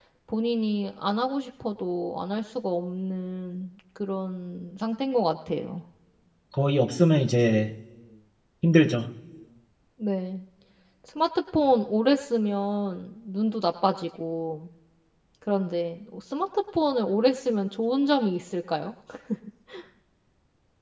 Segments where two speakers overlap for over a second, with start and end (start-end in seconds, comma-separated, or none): none